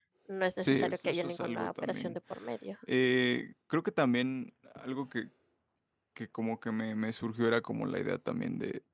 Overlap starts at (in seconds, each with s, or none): 0.6 s